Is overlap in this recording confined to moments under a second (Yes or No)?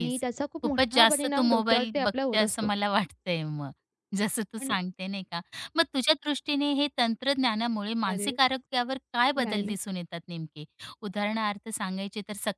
No